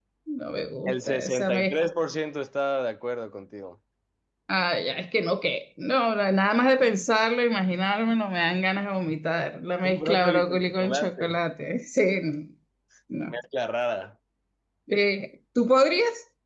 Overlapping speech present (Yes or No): Yes